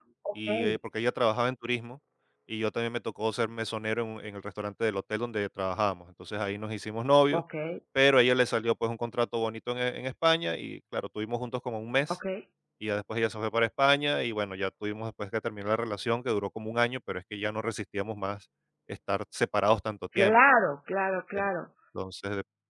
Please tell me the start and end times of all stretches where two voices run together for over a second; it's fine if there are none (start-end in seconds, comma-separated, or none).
none